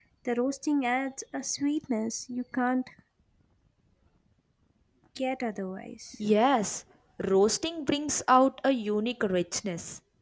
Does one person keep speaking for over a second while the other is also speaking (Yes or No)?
No